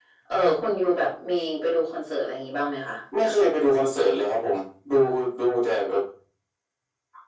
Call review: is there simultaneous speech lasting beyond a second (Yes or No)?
No